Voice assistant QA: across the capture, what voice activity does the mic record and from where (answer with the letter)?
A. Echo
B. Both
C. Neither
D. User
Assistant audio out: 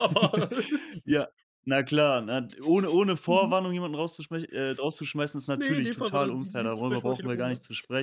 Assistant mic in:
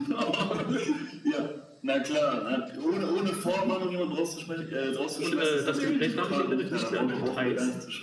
B